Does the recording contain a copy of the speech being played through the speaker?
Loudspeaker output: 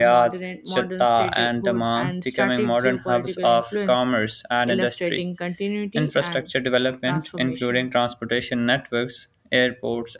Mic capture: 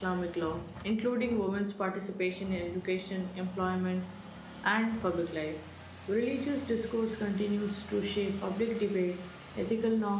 No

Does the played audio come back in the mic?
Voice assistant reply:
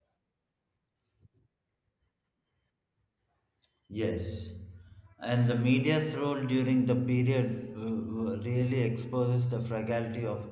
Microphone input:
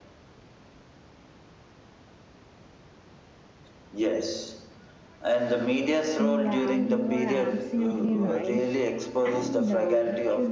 Yes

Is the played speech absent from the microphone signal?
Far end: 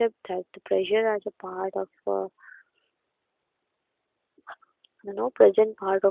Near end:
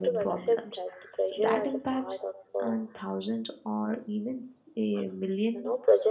No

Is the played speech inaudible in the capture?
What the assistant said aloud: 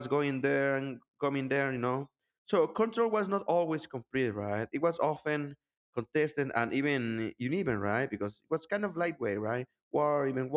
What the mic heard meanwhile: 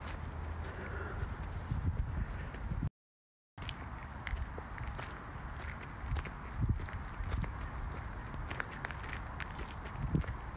Yes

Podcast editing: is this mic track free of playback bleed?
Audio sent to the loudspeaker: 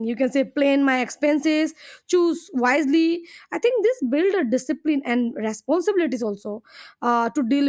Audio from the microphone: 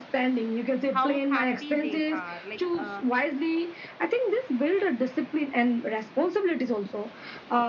No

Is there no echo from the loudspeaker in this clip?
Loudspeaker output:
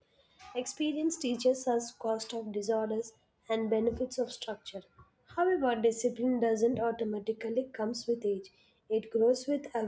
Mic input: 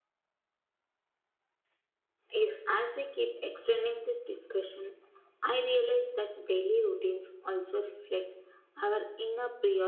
Yes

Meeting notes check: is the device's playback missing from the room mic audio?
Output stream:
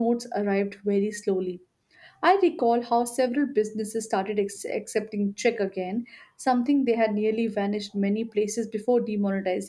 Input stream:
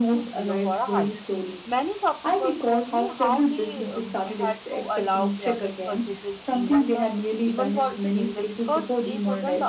No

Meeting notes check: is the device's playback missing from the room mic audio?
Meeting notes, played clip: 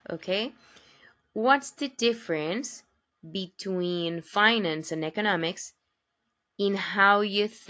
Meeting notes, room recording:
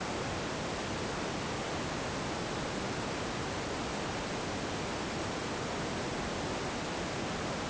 Yes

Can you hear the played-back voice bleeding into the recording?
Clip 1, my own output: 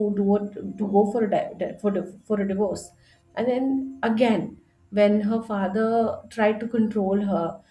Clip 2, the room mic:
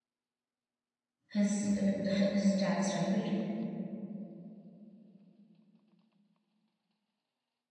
No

